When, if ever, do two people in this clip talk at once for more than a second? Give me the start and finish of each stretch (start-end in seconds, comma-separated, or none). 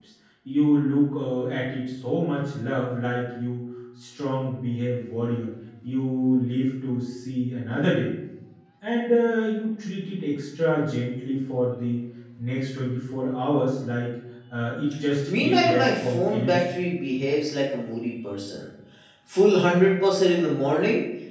15.4-16.7